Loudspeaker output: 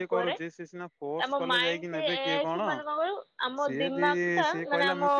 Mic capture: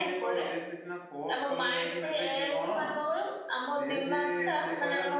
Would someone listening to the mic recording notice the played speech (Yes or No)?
Yes